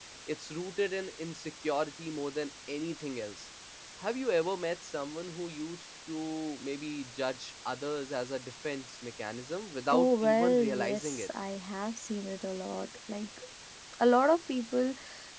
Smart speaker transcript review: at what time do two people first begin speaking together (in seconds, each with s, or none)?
9.9 s